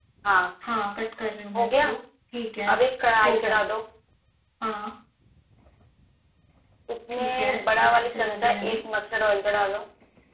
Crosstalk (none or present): present